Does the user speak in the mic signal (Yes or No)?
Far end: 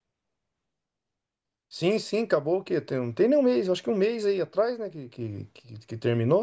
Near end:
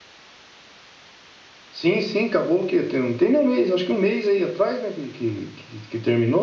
No